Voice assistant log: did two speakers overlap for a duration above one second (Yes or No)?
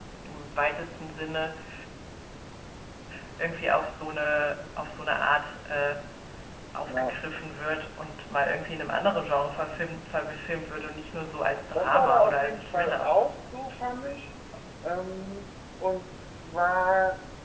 Yes